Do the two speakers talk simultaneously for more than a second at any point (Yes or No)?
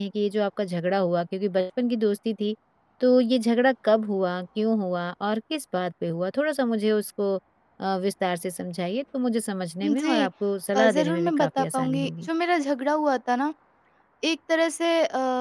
Yes